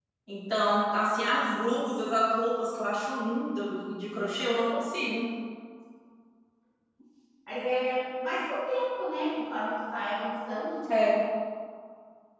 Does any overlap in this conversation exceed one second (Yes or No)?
No